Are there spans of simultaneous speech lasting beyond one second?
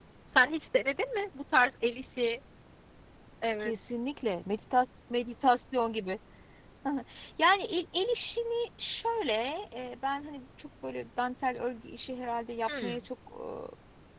No

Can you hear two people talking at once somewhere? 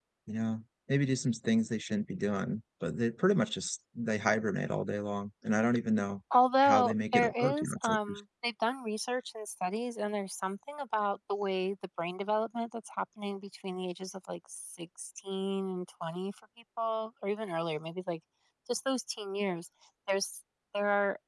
Yes, from 6.6 s

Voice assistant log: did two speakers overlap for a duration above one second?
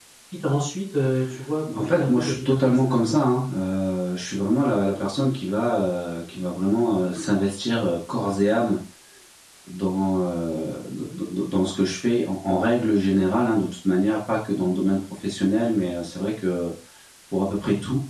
Yes, from 1.7 s

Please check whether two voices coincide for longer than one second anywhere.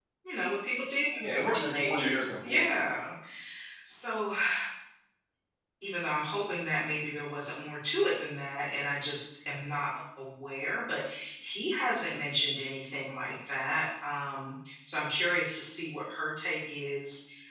Yes, from 1.2 s

